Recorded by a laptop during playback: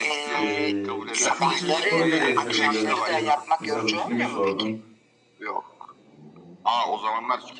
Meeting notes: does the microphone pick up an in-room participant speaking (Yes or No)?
Yes